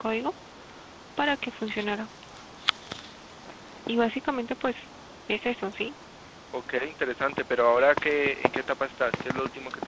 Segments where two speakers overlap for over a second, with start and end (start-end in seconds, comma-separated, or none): none